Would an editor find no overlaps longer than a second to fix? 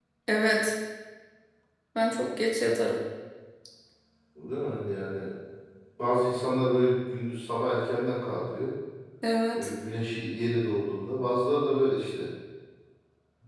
Yes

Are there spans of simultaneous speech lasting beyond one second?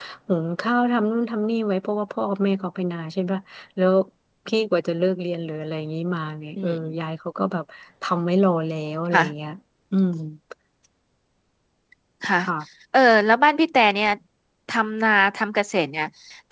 No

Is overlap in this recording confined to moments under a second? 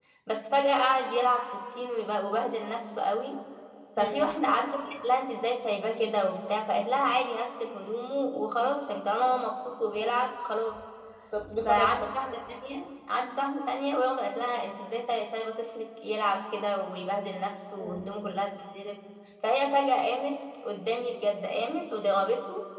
Yes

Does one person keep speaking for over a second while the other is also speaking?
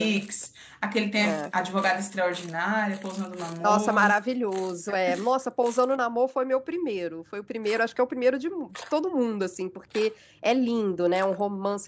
No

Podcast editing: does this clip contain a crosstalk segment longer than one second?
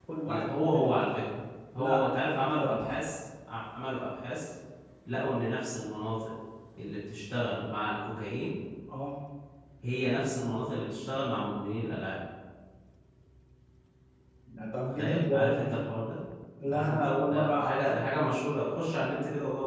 Yes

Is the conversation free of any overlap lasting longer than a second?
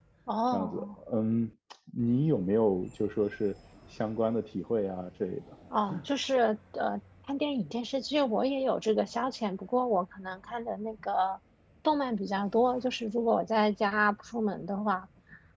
Yes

